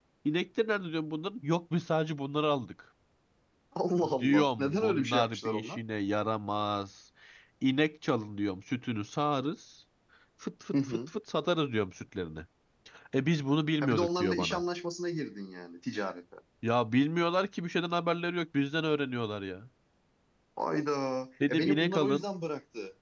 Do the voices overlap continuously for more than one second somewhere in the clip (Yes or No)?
Yes